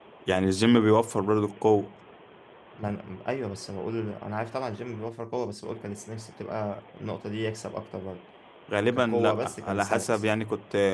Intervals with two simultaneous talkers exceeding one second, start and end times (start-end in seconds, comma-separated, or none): 8.9-10.2